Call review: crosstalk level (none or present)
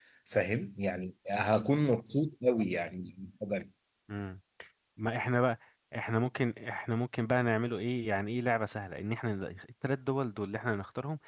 none